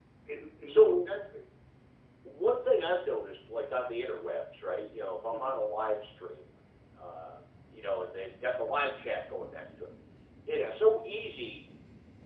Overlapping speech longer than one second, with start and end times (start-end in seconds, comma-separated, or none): none